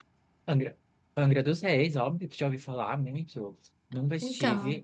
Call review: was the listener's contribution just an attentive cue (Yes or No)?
Yes